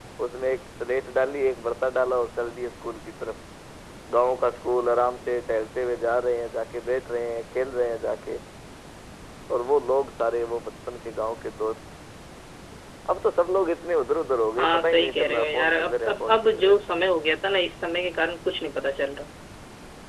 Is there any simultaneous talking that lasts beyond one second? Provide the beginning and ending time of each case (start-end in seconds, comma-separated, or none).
14.6-16.7